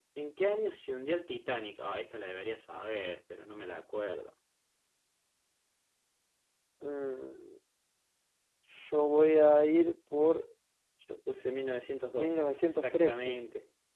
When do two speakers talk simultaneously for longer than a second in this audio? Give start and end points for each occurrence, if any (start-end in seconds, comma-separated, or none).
12.2-13.4